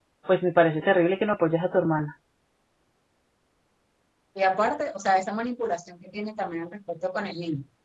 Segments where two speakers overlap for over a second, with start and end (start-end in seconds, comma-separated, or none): none